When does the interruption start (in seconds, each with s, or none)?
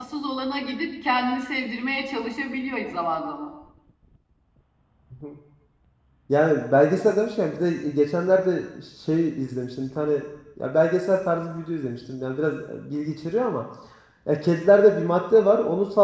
none